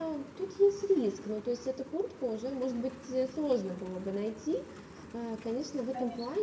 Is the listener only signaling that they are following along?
Yes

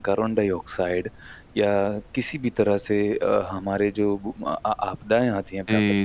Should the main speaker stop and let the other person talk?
No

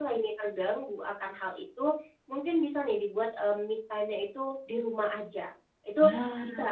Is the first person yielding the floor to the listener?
No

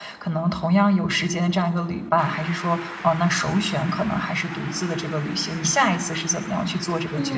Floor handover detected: Yes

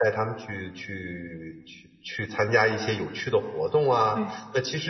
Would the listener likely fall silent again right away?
Yes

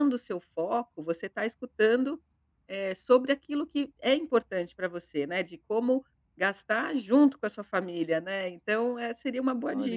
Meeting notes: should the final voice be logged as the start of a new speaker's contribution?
Yes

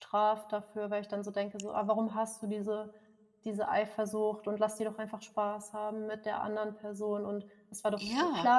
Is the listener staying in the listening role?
Yes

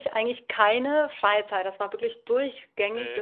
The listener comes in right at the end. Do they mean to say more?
No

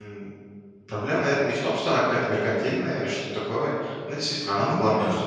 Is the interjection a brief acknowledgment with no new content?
Yes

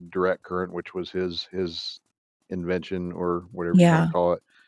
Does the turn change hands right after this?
No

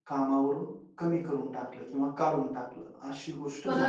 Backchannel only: No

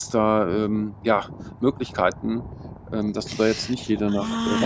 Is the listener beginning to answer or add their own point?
Yes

